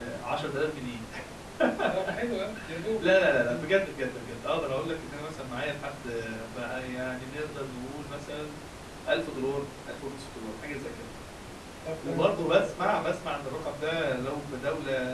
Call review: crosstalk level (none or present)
present